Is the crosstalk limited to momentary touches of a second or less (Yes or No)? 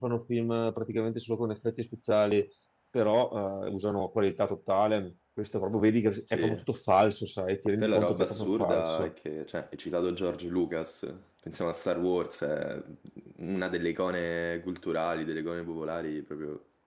No